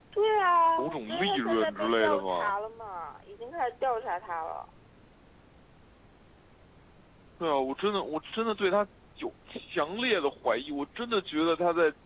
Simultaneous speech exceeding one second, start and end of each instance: 0.8-2.5

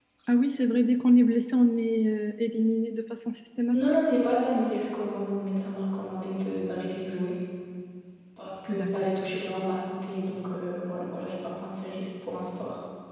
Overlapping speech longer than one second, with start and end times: none

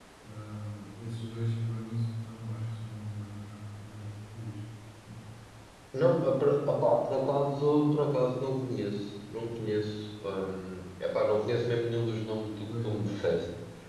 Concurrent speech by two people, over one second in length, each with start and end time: none

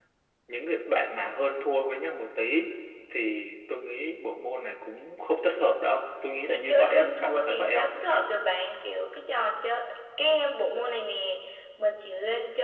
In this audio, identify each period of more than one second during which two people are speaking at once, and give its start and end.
6.5-7.9

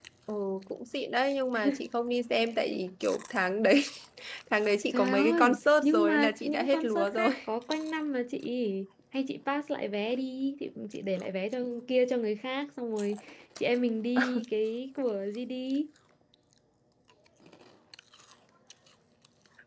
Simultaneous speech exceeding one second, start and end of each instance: 4.9-7.3

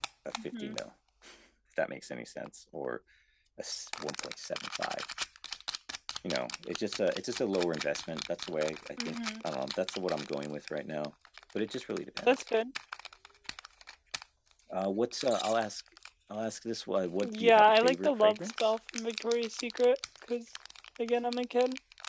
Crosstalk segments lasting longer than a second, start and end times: 17.2-18.7

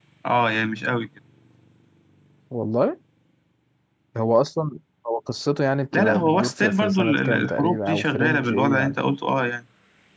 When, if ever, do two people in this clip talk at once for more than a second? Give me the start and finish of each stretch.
5.9-9.0

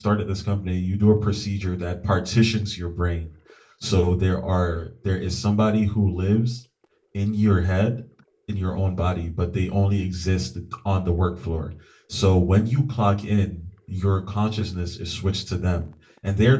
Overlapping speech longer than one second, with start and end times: none

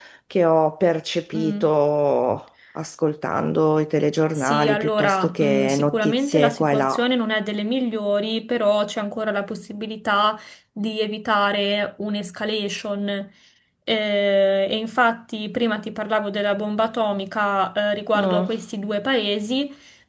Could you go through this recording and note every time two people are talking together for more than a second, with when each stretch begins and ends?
4.4-7.0

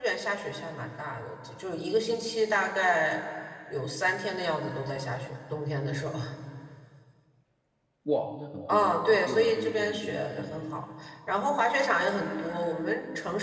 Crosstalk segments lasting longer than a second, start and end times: 8.7-10.5

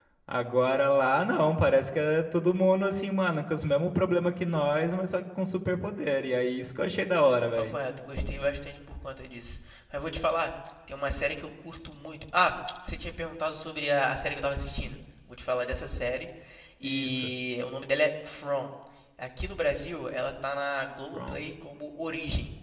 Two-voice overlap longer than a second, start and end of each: none

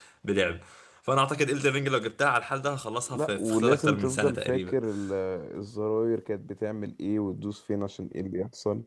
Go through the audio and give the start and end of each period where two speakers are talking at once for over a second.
3.1-4.8

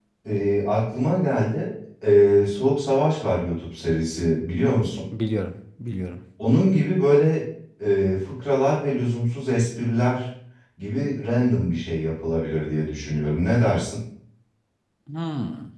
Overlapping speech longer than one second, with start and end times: none

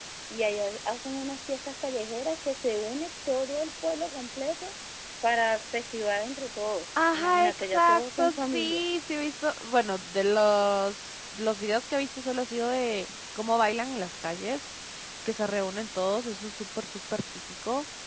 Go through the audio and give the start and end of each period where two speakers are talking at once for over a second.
7.1-8.8

